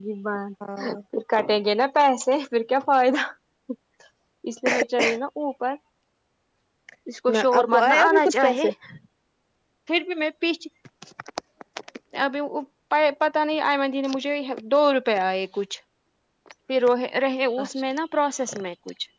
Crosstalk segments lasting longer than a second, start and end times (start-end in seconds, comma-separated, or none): 7.3-8.6